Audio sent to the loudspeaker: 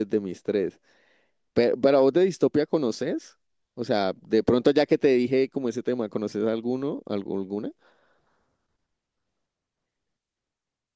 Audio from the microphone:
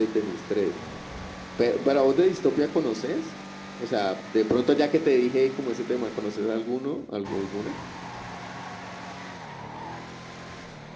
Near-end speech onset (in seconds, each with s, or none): none